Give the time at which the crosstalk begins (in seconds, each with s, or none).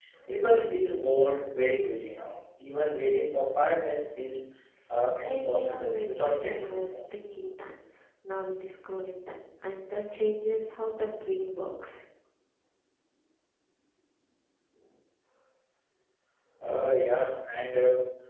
5.2 s